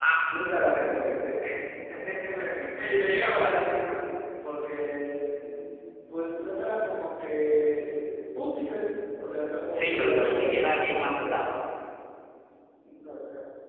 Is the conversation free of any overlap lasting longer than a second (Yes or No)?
No